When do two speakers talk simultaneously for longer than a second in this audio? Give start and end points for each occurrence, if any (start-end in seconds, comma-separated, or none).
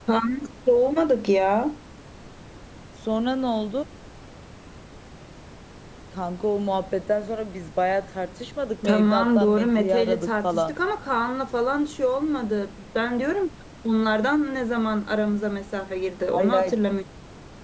8.8-10.7